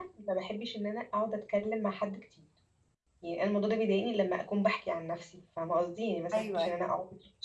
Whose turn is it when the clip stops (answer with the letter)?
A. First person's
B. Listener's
A